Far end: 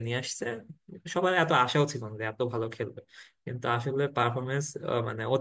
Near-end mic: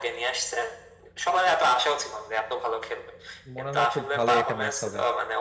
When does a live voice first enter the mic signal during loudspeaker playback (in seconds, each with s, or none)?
3.5 s